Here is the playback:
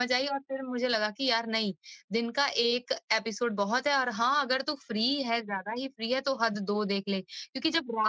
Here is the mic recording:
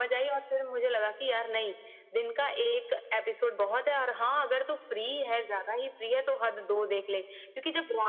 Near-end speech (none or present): none